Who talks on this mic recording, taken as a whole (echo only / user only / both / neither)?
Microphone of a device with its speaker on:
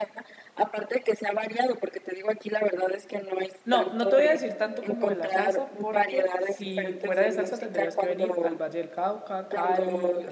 both